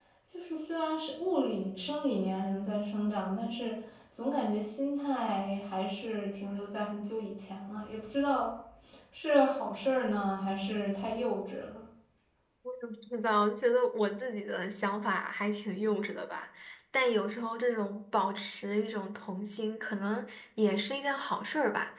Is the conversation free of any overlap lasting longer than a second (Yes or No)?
Yes